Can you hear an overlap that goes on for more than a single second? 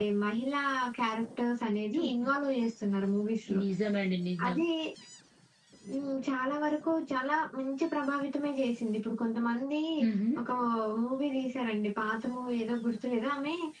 No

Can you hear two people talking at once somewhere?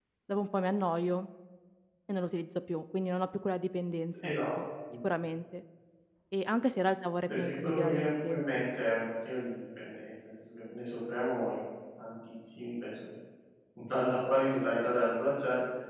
Yes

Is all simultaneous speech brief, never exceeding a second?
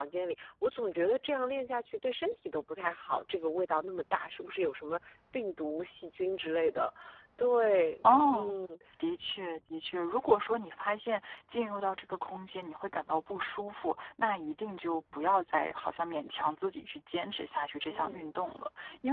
Yes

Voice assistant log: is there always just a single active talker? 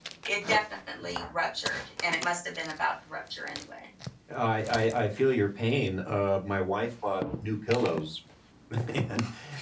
Yes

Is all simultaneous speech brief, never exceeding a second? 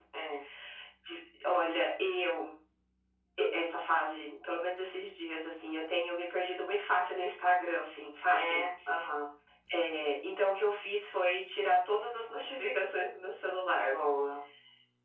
Yes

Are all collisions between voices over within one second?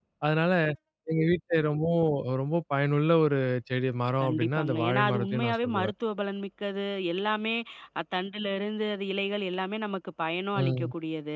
No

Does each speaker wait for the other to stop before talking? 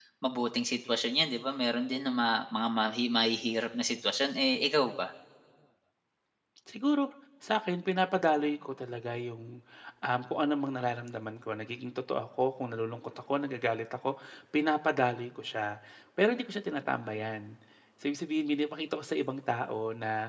Yes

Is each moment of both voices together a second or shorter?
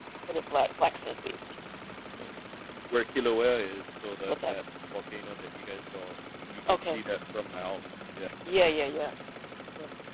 Yes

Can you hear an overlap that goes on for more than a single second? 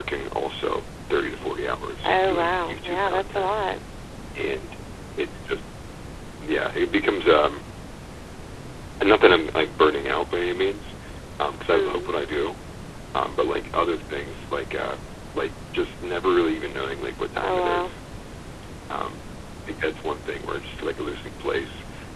Yes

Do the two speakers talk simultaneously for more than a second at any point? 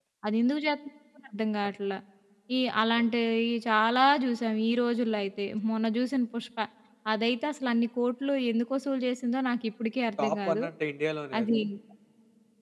No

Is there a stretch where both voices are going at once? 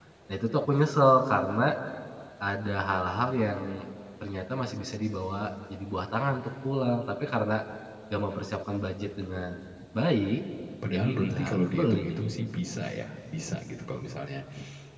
Yes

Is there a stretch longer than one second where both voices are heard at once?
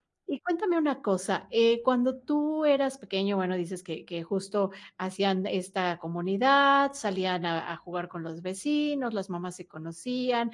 No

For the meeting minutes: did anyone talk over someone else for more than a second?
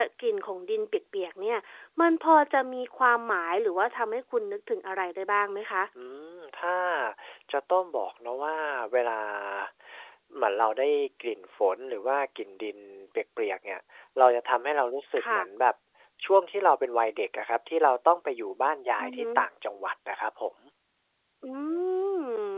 No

